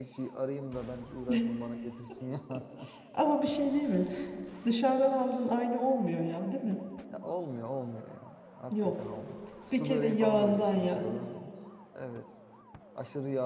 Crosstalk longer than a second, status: present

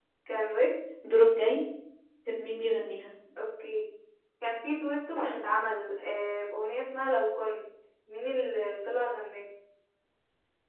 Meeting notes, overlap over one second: none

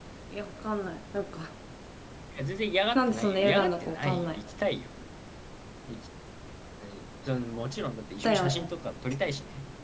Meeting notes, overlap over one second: present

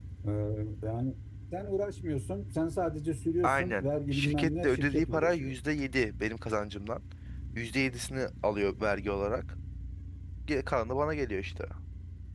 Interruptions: present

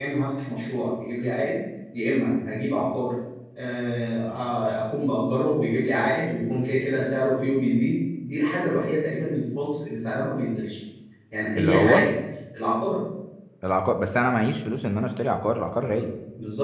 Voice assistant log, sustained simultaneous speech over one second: none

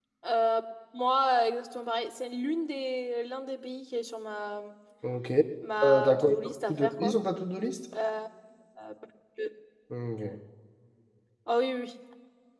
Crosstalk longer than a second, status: present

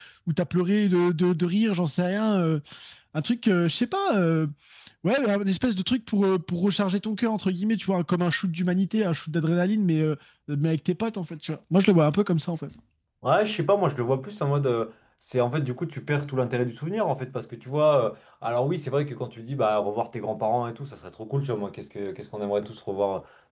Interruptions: none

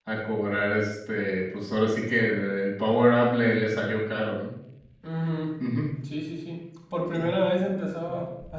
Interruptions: none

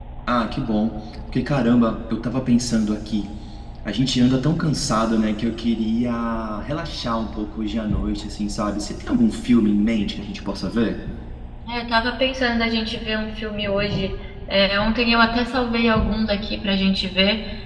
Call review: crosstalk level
none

